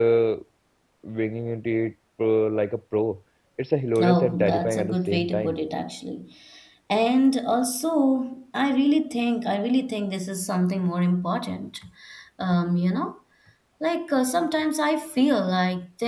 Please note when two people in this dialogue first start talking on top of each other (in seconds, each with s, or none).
4.0 s